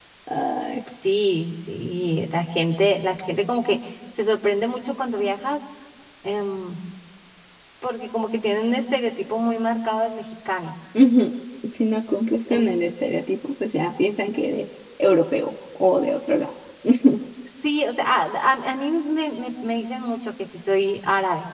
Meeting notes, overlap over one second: none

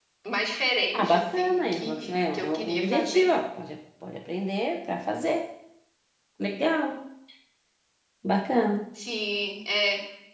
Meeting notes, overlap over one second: present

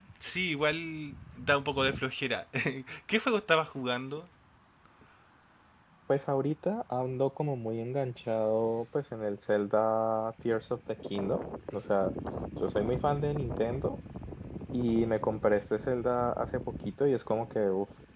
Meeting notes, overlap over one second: none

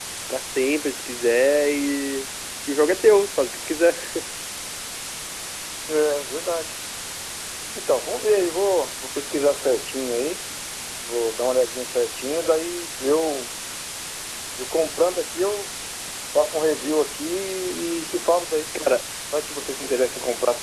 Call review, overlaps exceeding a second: none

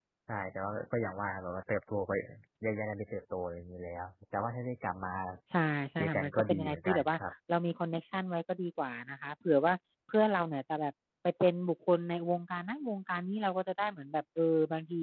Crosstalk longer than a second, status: present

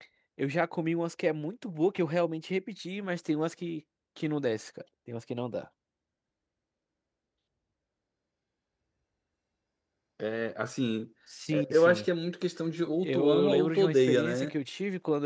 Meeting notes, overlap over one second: present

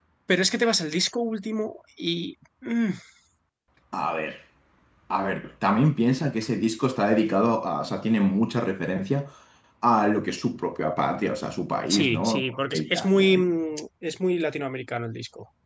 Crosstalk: present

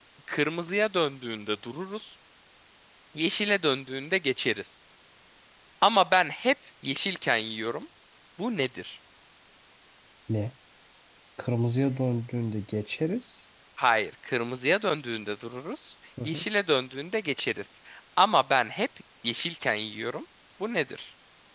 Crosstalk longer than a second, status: none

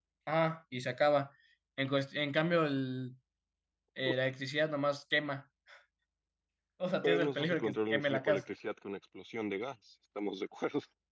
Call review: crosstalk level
present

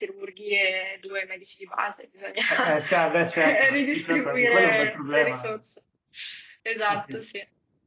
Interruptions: present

